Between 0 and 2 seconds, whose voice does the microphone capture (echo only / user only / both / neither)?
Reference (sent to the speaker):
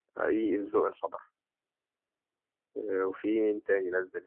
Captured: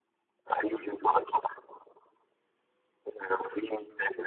echo only